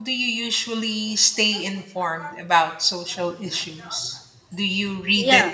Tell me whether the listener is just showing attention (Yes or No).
Yes